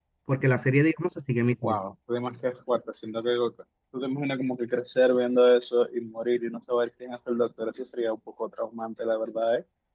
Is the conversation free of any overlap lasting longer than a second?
Yes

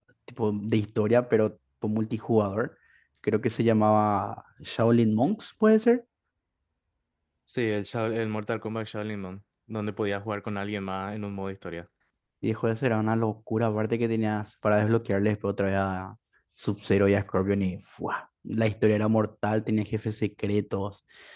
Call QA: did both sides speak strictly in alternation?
Yes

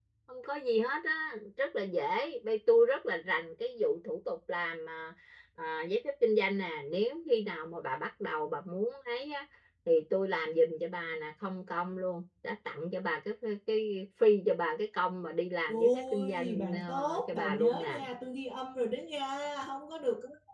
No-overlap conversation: No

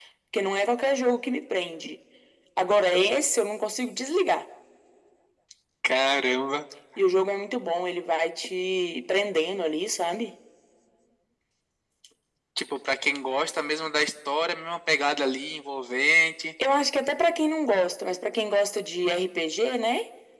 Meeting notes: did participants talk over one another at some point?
No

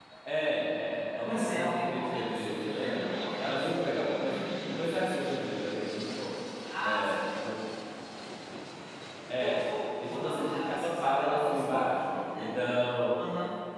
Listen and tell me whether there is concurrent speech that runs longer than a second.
Yes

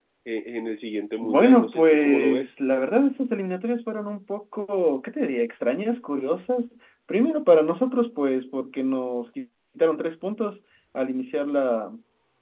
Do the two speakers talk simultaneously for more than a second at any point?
Yes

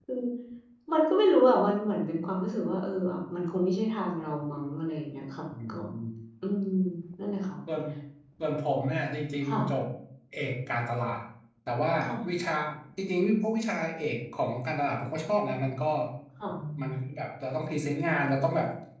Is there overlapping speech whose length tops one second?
No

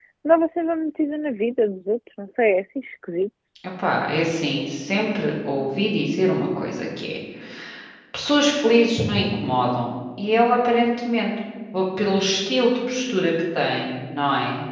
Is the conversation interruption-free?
Yes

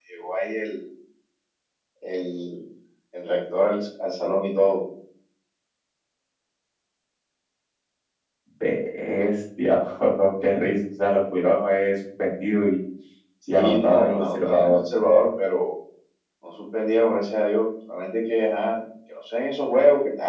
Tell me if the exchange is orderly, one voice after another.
No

